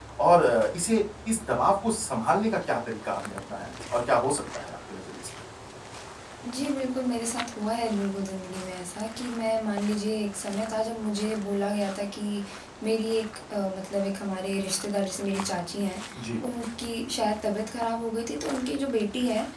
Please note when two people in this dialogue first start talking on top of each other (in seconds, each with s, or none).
none